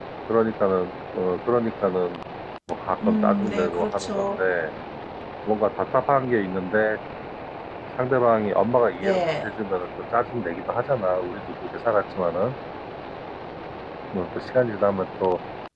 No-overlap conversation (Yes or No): No